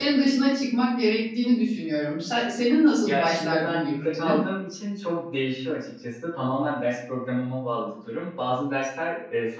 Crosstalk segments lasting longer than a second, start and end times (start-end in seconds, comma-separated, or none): 3.0-4.4